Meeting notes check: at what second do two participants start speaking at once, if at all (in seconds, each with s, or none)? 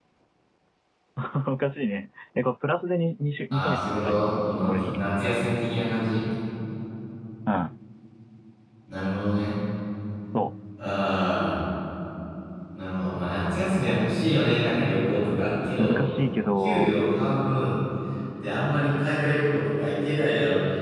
3.5 s